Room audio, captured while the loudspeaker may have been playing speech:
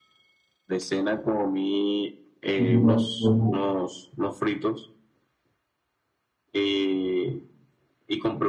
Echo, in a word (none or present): present